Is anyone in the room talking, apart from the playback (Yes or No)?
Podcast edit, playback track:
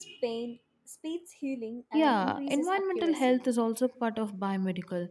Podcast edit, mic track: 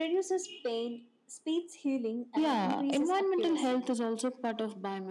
No